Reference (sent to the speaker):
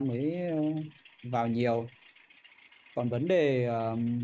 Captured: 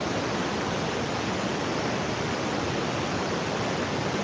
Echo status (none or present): none